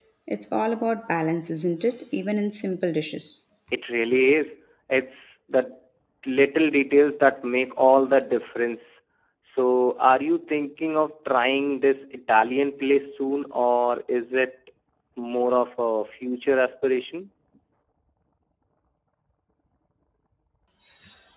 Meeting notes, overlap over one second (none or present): none